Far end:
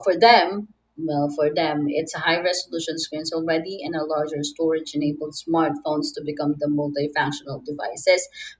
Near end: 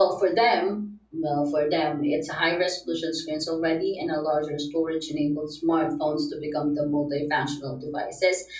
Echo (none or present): present